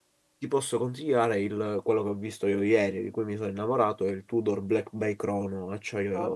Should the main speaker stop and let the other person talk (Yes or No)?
Yes